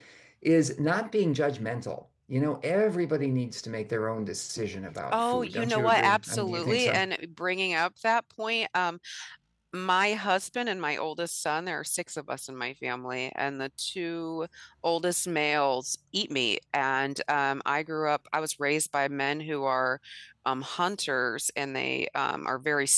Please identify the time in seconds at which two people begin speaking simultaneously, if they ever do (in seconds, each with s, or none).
5.1 s